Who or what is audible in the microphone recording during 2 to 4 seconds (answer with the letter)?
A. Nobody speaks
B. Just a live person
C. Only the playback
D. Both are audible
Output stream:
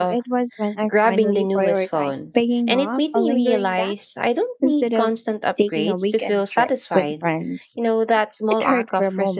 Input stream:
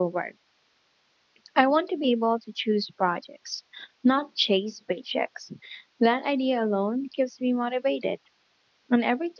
B